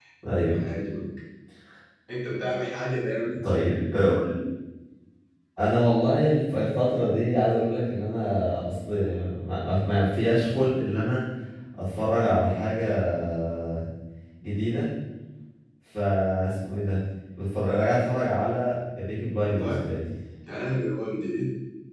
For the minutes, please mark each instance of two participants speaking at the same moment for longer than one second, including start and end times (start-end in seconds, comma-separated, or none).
none